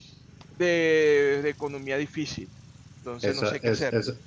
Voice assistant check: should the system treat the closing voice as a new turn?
Yes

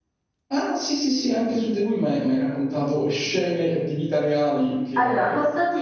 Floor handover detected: Yes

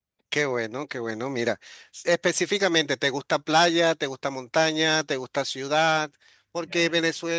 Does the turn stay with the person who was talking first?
Yes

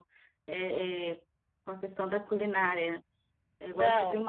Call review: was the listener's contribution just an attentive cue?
Yes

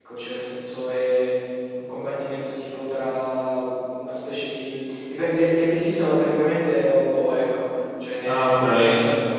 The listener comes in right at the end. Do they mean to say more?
No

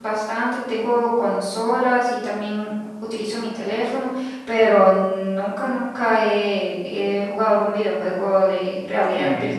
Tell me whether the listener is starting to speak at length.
Yes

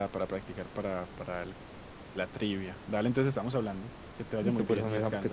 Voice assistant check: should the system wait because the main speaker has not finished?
No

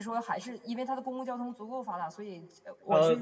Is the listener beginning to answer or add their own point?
No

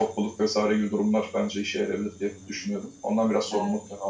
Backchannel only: No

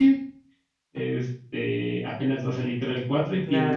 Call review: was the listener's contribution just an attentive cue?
No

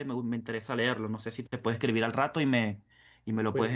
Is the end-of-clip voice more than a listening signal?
Yes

